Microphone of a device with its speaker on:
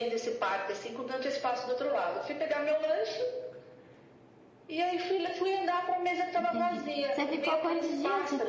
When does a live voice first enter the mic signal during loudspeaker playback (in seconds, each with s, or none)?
6.3 s